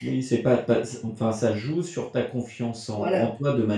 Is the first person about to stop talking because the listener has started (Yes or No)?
No